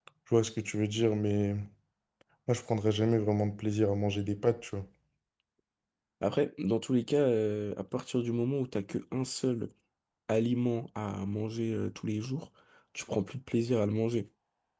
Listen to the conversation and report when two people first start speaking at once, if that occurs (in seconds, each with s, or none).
none